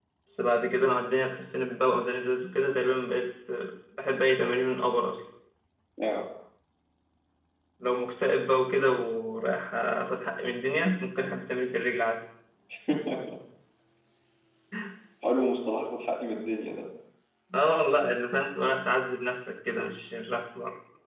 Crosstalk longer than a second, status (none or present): none